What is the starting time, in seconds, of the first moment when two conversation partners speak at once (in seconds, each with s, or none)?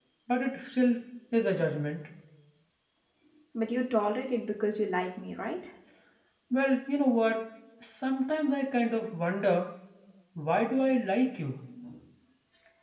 none